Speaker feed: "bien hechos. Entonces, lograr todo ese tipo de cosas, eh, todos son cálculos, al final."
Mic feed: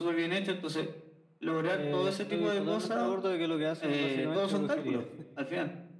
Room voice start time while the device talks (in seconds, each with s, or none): 1.7 s